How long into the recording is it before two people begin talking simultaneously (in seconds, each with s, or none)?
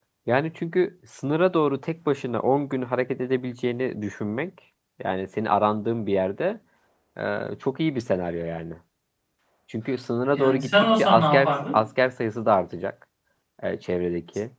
10.3 s